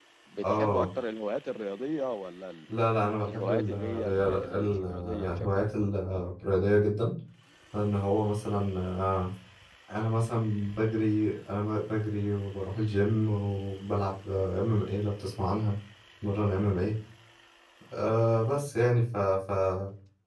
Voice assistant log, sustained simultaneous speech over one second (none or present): present